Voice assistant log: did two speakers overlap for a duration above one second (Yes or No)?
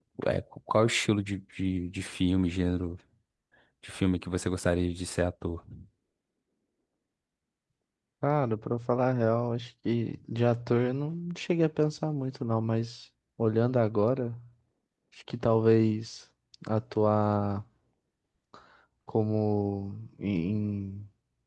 No